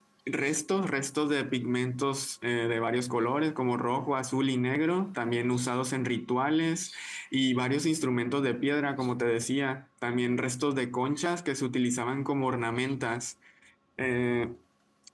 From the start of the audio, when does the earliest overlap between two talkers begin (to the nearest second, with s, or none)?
none